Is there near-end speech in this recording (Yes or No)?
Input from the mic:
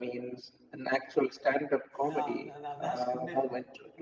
Yes